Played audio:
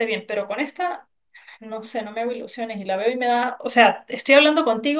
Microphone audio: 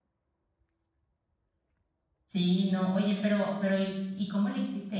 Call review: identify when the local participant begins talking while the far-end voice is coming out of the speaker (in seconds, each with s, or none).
2.3 s